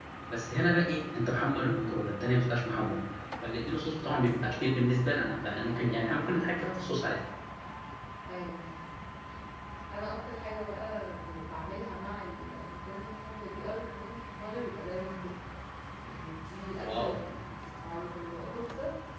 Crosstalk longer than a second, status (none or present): none